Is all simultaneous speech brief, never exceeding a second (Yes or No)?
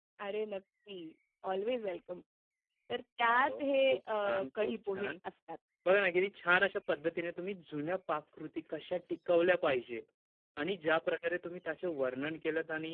No